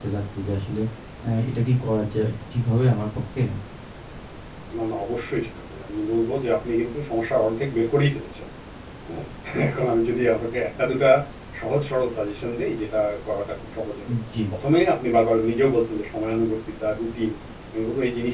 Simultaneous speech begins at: none

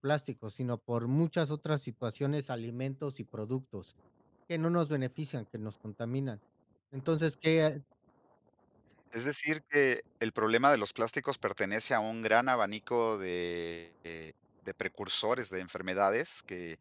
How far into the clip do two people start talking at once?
none

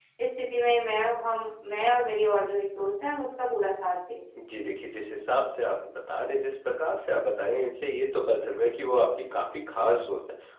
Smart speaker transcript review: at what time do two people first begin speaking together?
none

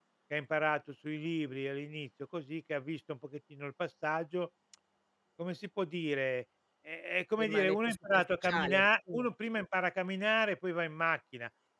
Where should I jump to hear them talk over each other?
7.4 s

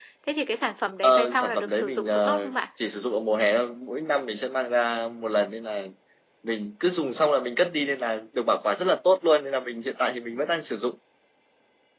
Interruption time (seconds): 1.0 s

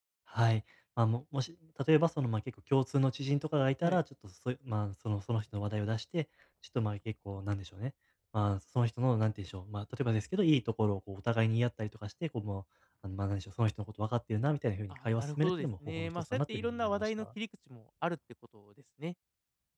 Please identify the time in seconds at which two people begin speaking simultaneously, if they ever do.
14.9 s

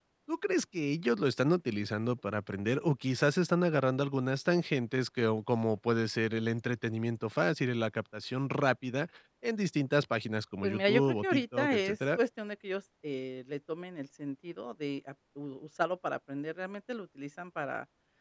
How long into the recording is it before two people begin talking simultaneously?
10.6 s

